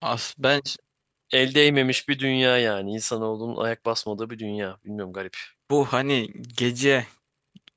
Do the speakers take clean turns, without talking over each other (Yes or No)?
Yes